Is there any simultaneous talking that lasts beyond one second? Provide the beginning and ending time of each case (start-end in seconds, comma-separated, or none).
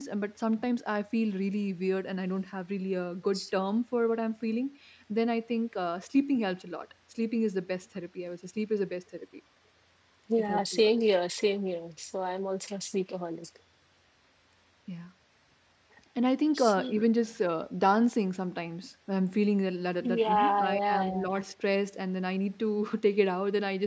20.0-21.3